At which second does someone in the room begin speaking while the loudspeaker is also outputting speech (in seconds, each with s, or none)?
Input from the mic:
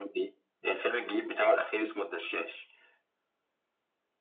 none